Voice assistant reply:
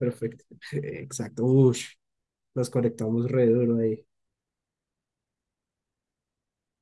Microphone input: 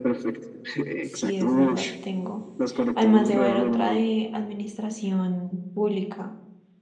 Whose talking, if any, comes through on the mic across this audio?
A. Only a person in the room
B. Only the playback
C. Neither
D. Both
D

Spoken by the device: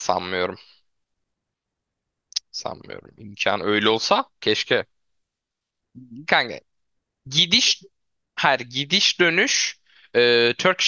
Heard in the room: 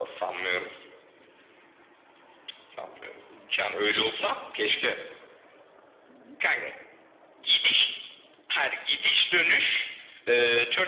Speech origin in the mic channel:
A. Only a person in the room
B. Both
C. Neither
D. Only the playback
D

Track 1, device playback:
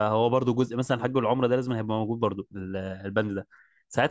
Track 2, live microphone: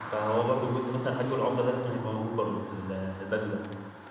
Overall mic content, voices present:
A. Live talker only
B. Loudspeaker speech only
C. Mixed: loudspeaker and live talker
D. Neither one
B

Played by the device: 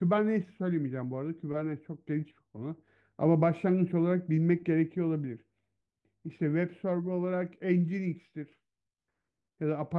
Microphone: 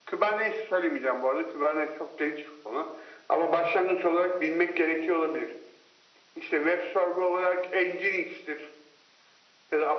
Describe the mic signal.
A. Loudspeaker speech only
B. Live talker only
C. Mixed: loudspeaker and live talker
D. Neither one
A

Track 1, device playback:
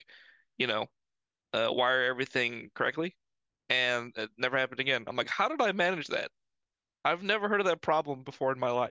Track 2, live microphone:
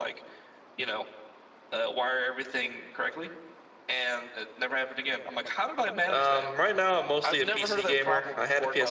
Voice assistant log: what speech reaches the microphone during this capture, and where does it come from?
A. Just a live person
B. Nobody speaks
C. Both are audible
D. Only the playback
C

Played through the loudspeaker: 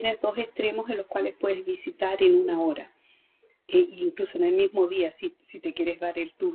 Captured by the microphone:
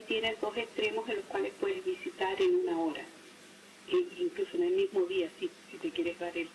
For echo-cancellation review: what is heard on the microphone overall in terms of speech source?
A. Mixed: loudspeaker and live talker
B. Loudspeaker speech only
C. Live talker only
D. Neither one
B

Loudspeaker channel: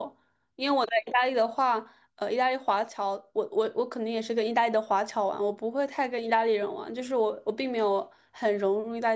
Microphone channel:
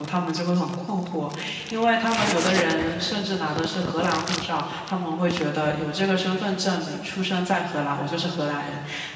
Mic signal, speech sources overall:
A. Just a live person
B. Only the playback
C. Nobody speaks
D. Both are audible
A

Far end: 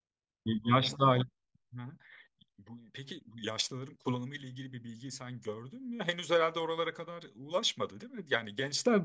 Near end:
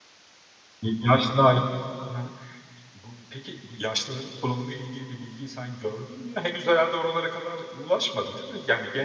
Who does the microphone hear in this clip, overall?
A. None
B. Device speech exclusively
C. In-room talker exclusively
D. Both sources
B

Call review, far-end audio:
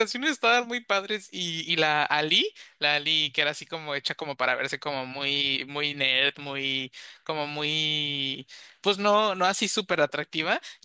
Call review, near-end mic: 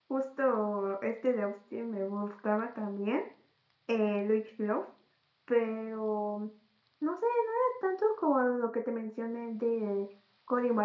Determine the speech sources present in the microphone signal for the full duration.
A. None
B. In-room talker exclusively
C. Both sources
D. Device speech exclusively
B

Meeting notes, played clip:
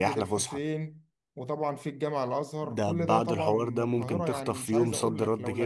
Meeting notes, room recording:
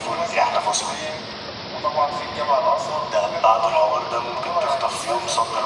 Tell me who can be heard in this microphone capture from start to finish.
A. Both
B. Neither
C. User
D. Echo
D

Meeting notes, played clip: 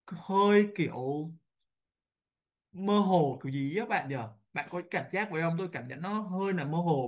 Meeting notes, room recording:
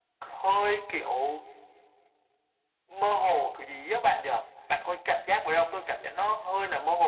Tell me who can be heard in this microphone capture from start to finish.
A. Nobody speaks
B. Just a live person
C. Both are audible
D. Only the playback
D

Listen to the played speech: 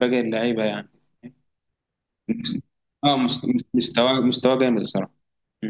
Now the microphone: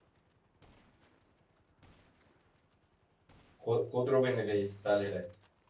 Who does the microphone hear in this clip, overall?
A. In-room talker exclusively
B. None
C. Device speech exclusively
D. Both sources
A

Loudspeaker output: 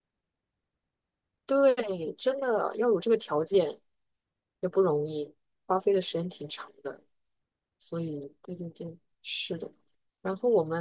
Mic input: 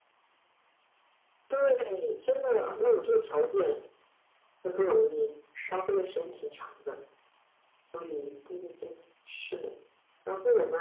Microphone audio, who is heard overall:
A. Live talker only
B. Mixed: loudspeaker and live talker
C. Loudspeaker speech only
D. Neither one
B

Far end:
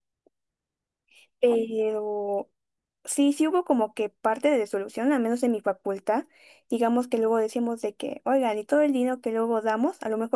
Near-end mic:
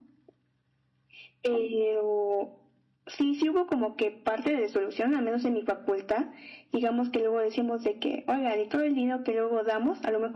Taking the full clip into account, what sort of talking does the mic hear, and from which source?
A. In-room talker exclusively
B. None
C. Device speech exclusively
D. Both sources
C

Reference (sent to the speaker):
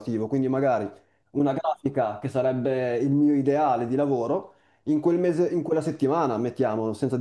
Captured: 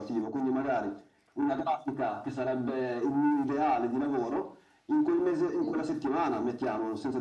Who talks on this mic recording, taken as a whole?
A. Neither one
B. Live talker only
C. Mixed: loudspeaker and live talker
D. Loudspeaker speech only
C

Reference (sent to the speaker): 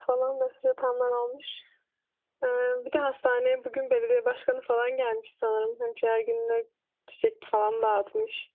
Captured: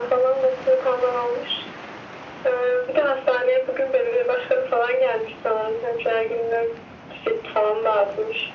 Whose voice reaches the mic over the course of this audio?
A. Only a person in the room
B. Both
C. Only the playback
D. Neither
C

